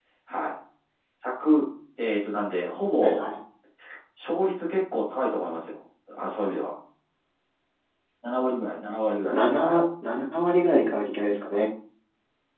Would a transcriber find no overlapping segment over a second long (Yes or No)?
Yes